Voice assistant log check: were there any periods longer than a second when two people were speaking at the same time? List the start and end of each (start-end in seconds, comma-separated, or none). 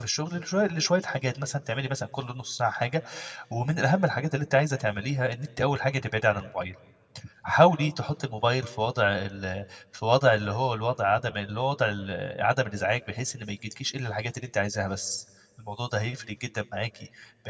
none